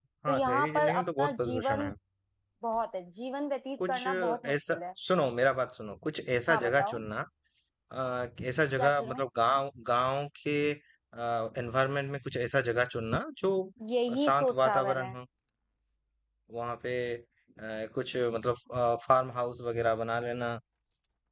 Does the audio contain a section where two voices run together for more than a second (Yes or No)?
Yes